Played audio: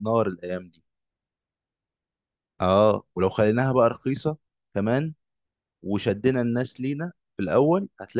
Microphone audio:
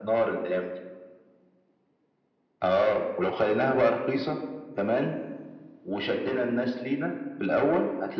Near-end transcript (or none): none